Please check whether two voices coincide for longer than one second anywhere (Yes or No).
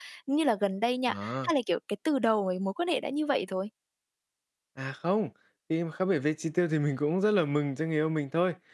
No